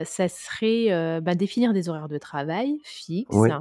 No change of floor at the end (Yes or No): Yes